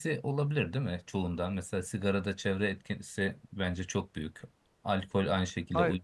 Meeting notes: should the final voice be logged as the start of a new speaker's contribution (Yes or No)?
No